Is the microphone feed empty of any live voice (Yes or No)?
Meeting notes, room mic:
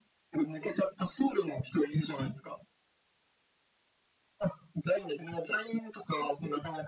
Yes